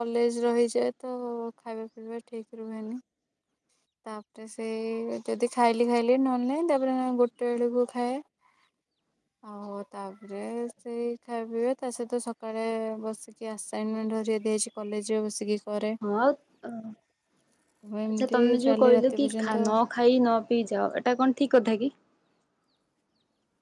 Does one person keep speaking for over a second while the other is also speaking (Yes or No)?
Yes